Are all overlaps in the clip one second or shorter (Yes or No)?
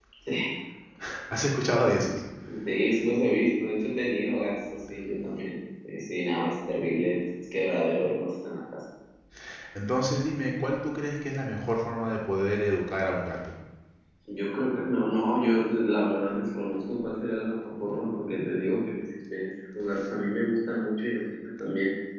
Yes